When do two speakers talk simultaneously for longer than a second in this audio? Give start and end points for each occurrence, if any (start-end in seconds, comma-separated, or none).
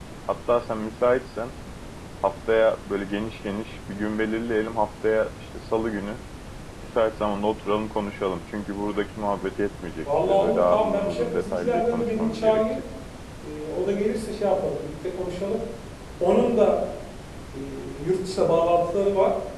10.1-12.8